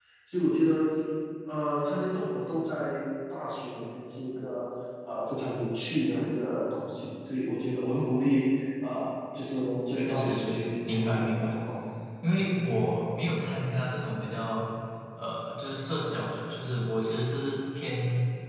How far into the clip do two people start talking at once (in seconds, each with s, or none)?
10.0 s